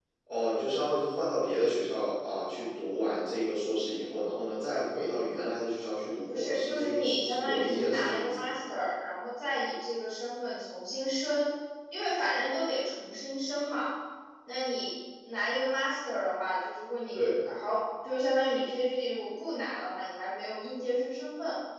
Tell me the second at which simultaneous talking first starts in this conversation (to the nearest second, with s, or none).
6 s